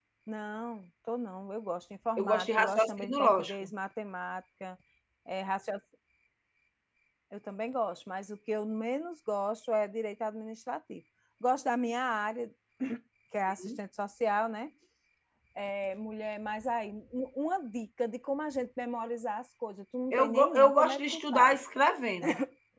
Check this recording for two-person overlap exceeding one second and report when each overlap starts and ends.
2.2-3.7, 20.1-21.6

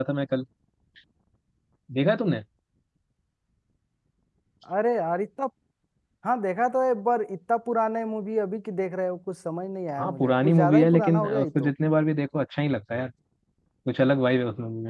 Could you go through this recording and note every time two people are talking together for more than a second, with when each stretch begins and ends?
10.0-11.7

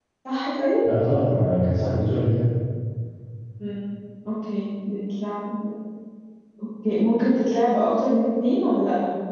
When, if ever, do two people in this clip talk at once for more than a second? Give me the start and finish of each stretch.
none

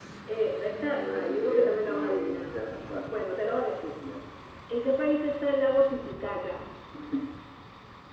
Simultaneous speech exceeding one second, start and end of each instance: 1.0-2.6

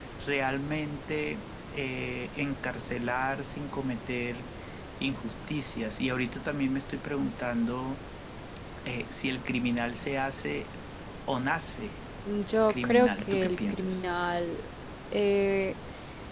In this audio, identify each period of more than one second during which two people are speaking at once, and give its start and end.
12.7-14.0

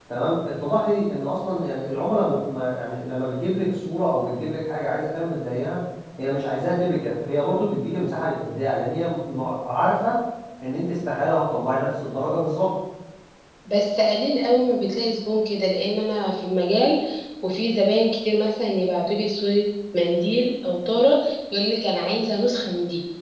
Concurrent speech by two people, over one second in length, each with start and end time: none

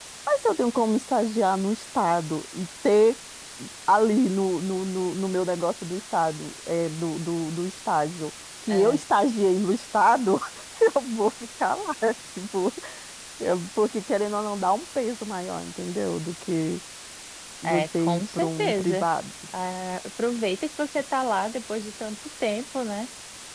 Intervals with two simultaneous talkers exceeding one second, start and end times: 17.6-19.1

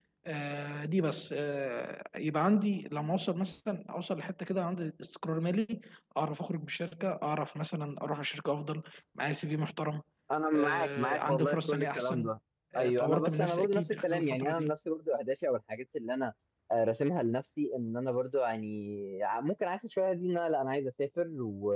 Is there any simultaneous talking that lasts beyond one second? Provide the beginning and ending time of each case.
10.5-12.3, 12.8-14.7

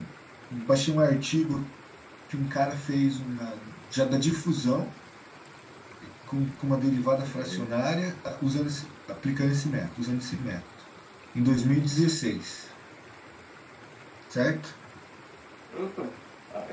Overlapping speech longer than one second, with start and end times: none

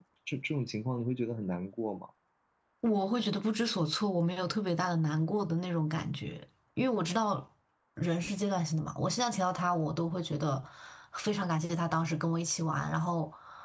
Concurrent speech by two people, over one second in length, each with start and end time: none

